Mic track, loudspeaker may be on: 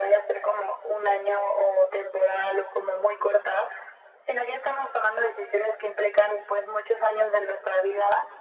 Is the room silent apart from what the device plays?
Yes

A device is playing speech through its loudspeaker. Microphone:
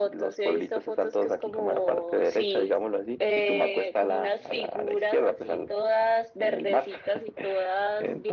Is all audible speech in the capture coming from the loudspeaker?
Yes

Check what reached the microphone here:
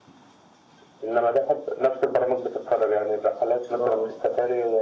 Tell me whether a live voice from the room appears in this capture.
Yes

